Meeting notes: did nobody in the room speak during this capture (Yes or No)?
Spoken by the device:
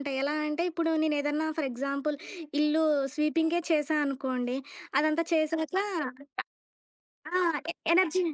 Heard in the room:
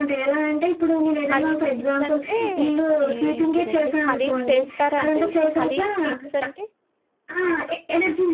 No